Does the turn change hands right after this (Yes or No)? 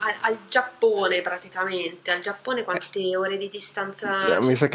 Yes